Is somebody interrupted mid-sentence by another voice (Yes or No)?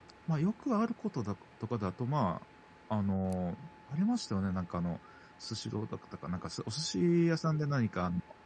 No